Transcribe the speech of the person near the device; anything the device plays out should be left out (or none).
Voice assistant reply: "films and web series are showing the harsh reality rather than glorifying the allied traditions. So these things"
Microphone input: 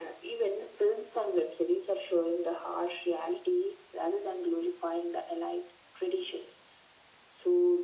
none